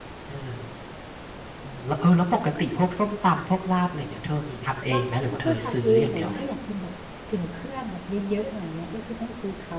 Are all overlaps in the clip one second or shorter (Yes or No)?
No